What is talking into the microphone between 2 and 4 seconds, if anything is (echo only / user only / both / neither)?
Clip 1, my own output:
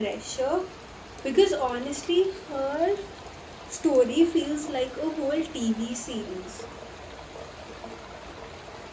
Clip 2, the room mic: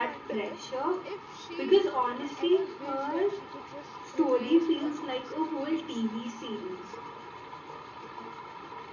both